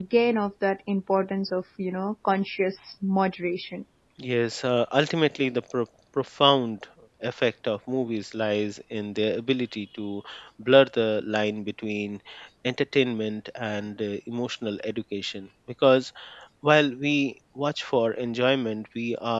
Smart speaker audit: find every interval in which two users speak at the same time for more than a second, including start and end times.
none

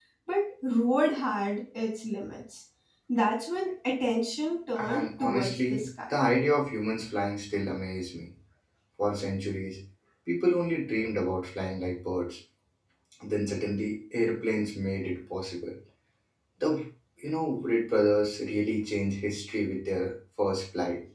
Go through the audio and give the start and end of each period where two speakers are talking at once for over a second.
4.8-6.2

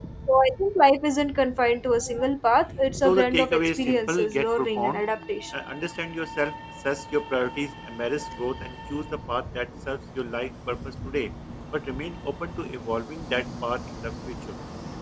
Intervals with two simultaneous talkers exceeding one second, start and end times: 3.0-5.0

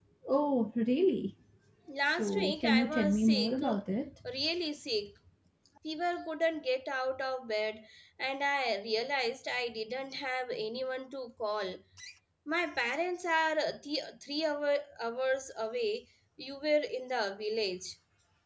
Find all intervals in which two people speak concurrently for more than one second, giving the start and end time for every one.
2.2-3.7

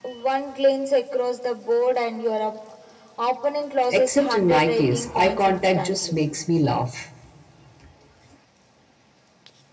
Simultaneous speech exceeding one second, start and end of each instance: 3.9-6.1

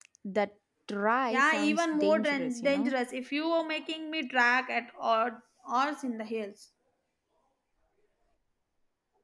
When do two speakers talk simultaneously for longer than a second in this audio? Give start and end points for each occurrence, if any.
1.3-2.9

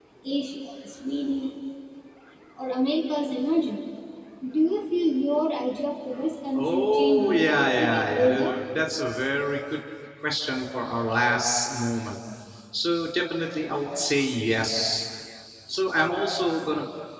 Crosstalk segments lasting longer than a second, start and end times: 6.5-8.5

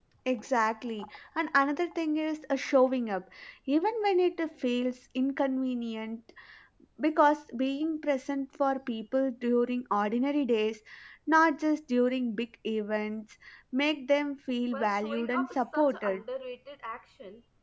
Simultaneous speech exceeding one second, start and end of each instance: 14.7-16.2

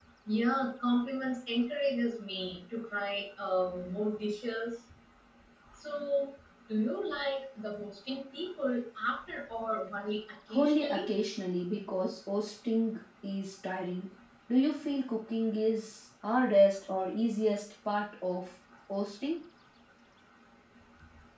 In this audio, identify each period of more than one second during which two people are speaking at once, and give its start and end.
none

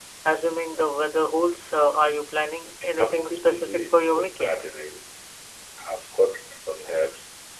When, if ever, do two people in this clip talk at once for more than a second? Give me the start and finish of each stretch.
3.0-4.6

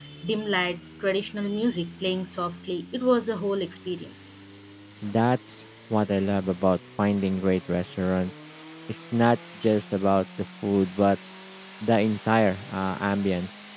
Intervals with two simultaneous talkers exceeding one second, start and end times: none

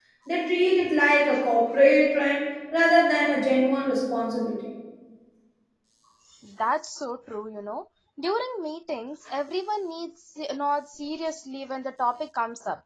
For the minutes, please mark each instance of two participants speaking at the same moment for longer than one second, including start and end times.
none

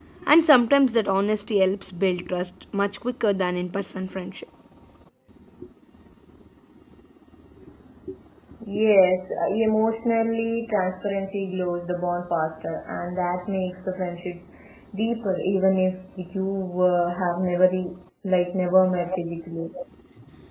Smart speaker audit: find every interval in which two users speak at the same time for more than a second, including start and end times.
none

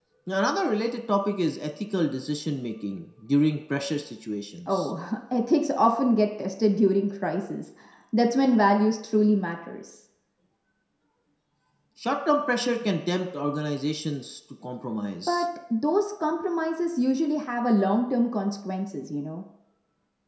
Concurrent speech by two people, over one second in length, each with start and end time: none

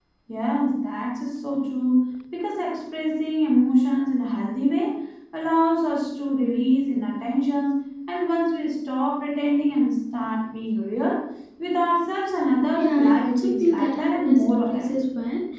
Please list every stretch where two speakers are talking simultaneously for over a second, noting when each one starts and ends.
12.8-15.0

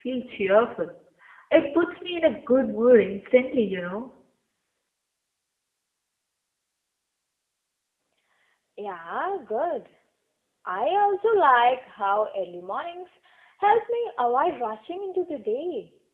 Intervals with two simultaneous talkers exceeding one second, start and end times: none

